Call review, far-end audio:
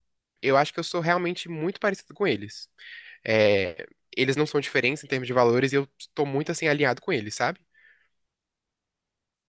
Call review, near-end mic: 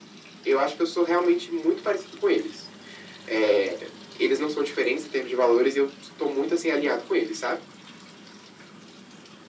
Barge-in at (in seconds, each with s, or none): none